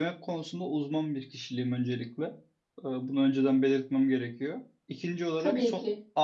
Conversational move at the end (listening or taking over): listening